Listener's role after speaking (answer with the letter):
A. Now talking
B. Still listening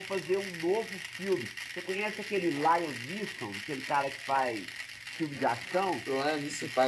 A